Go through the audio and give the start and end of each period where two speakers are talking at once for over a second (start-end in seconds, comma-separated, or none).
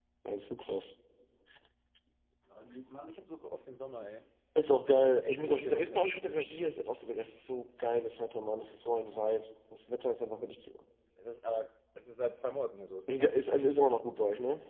5.1-6.7